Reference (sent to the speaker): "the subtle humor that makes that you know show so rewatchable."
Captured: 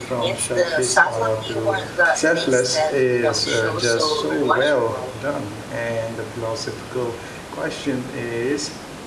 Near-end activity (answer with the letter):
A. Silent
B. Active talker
B